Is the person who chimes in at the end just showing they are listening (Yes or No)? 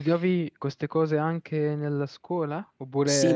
No